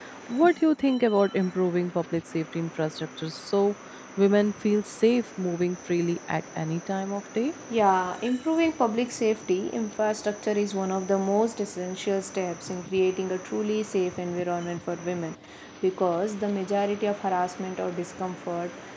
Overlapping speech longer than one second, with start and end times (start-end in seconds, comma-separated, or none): none